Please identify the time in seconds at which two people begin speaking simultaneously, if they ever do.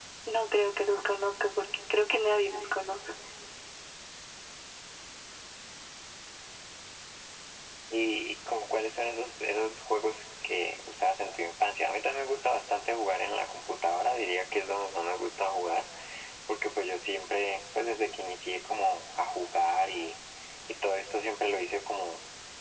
none

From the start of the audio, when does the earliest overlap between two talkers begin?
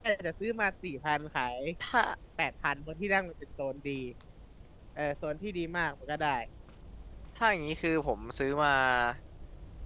none

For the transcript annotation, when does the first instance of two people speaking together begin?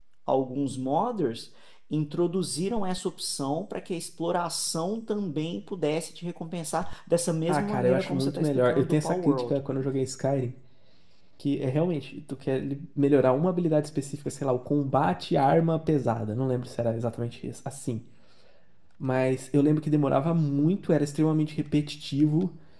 7.5 s

